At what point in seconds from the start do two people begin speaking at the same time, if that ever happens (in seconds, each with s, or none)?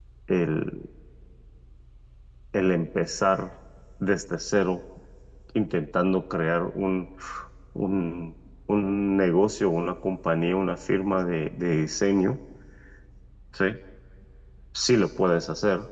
none